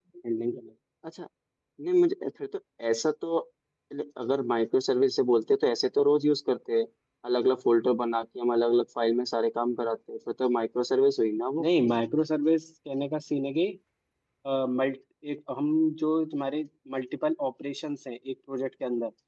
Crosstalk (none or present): none